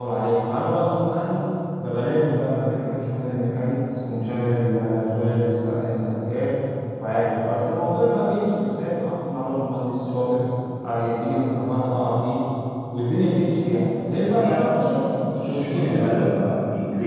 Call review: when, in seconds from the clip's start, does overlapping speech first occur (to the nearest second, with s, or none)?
14 s